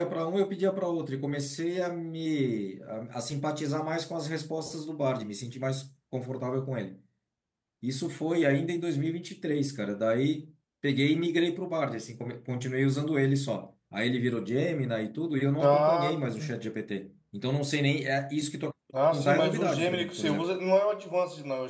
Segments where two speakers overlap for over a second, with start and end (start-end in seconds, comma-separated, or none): 19.1-20.5